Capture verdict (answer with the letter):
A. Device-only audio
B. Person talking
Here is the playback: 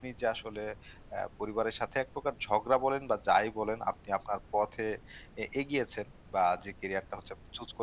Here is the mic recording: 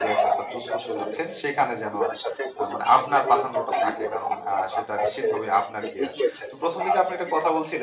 B